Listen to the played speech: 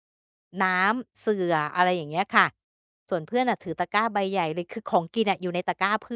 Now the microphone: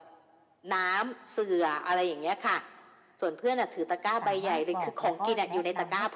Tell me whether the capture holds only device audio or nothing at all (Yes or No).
No